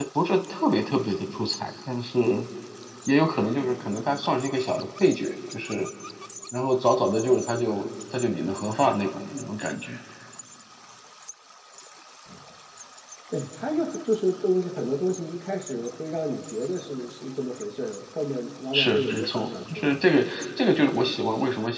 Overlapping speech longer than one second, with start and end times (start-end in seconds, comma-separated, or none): 18.7-20.0